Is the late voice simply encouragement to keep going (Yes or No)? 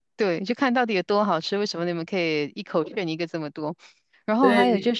Yes